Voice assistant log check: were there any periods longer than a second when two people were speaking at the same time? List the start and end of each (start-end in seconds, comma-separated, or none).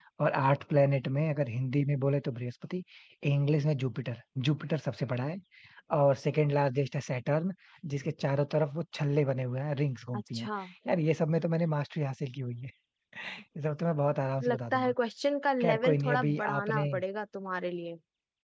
15.6-16.9